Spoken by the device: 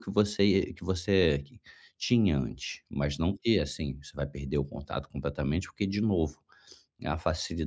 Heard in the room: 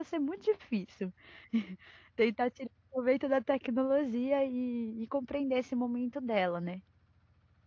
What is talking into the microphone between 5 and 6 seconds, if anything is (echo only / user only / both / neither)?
user only